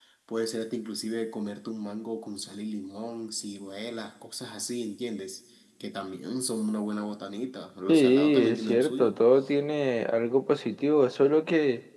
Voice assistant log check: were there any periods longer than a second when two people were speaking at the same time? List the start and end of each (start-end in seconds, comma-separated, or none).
7.9-9.2